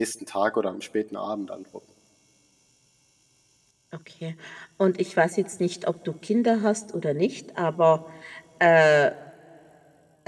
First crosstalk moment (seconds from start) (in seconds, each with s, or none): none